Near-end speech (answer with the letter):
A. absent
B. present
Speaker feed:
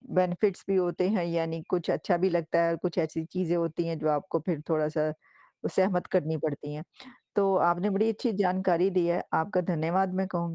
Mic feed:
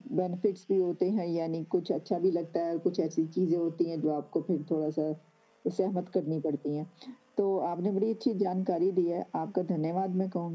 A